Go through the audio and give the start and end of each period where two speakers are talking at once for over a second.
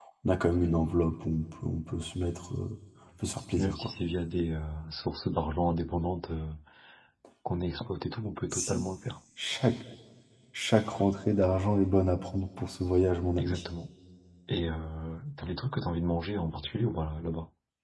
none

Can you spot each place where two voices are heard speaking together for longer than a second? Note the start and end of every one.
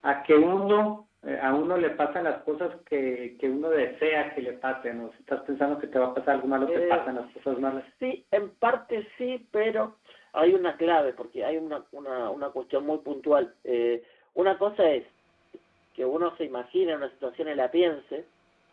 6.7-7.9

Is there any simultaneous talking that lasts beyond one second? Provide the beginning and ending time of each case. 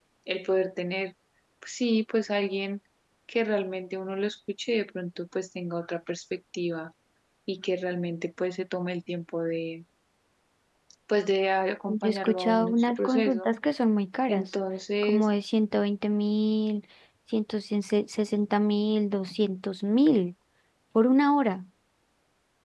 11.9-13.5

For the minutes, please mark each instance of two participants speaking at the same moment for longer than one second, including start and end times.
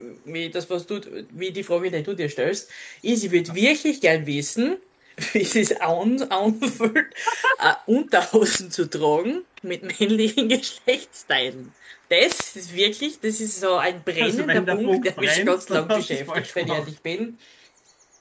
14.2-16.9

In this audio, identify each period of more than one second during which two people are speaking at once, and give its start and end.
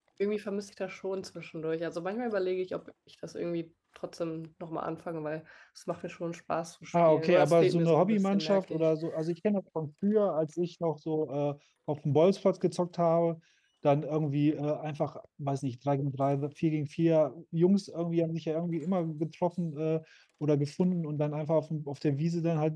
7.1-8.9

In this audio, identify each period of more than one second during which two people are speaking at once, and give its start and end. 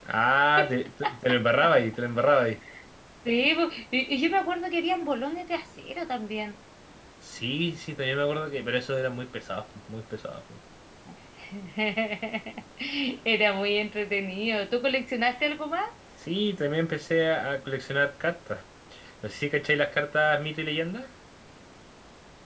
none

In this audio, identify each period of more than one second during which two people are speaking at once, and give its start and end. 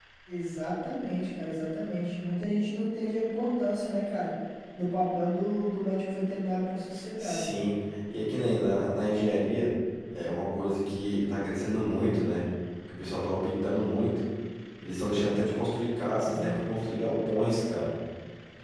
none

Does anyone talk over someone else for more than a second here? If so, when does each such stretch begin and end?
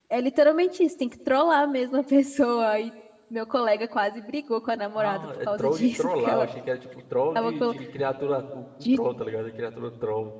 5.0-6.5

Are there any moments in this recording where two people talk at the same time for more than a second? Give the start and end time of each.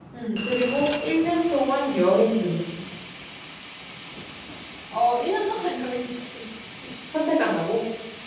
none

